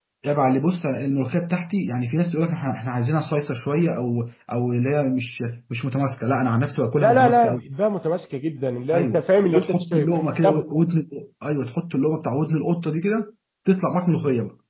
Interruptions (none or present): present